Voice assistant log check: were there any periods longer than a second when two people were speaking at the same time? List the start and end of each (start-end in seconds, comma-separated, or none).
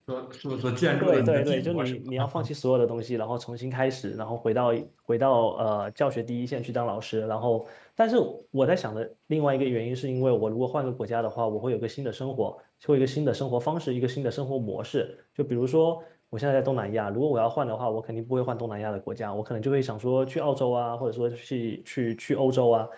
1.0-2.2